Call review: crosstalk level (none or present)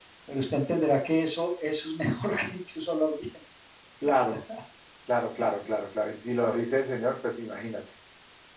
none